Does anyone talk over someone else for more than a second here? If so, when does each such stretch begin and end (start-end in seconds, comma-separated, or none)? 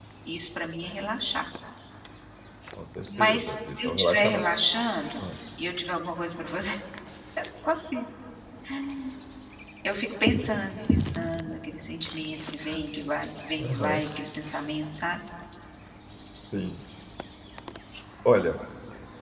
3.2-4.4